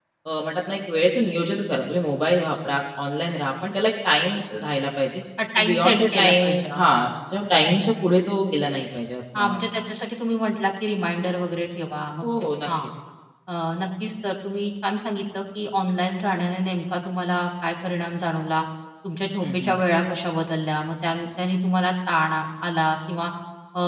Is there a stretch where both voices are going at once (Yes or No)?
Yes